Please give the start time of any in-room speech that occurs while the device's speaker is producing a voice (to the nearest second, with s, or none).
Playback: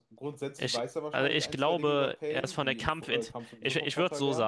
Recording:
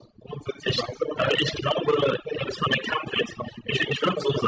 none